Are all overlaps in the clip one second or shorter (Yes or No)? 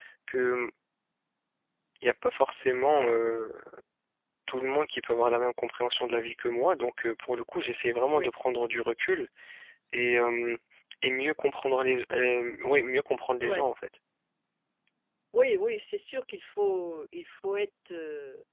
Yes